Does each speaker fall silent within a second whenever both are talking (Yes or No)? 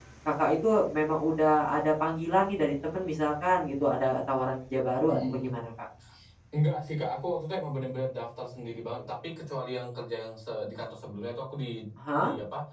Yes